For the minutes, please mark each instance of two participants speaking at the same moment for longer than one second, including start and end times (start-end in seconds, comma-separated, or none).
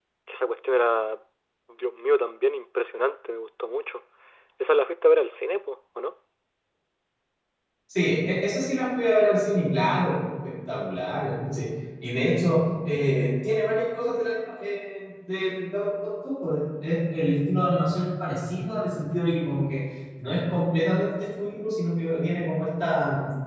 none